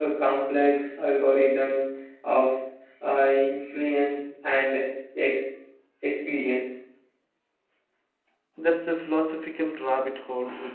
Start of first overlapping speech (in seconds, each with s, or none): none